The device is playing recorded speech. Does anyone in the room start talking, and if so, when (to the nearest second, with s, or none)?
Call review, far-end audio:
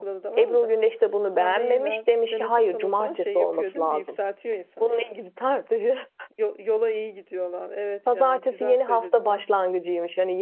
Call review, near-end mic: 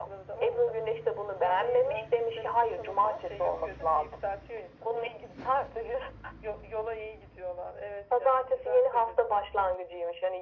none